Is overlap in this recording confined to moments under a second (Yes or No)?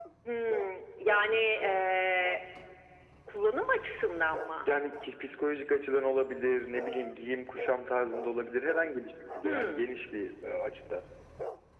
Yes